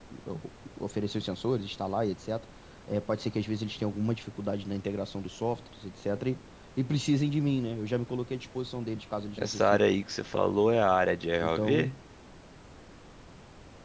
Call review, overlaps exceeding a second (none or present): none